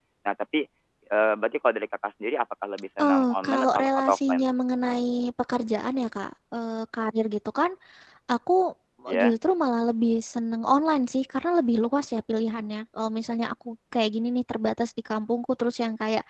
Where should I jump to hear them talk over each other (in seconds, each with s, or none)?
3.0 s